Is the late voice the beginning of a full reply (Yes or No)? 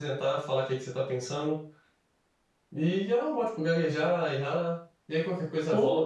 No